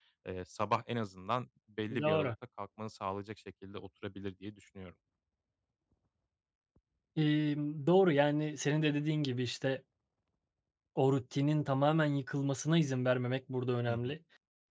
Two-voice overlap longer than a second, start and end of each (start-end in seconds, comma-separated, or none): none